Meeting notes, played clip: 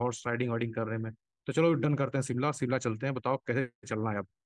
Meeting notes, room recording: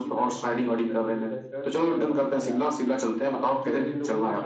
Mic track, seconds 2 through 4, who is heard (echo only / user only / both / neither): both